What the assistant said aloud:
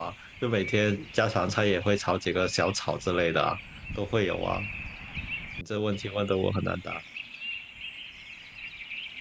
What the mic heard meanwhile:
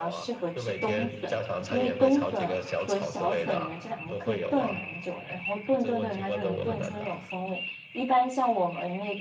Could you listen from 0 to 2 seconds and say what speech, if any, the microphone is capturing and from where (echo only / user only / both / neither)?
both